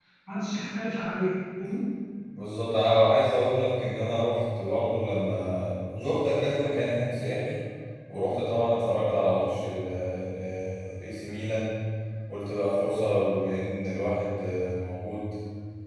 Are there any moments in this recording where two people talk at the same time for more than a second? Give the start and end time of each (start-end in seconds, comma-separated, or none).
none